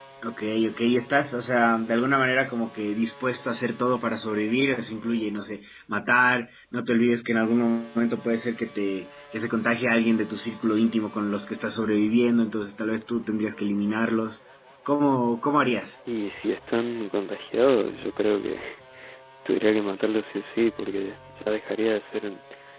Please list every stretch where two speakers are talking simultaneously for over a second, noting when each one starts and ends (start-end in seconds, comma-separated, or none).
none